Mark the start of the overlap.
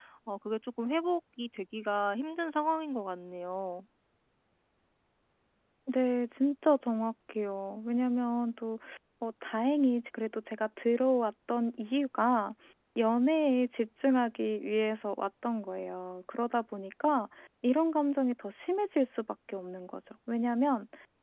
none

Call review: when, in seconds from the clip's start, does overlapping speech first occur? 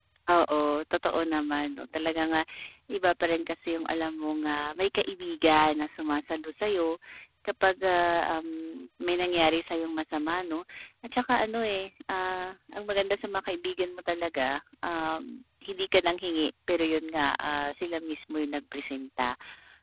none

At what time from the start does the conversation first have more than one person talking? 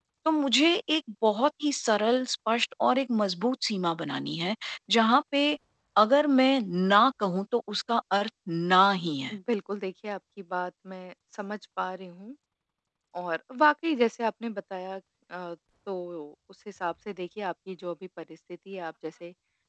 none

